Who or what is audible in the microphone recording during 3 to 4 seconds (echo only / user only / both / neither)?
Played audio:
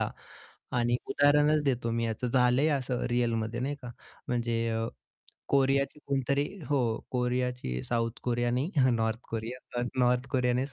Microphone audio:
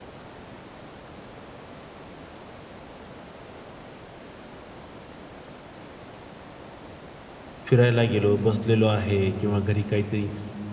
neither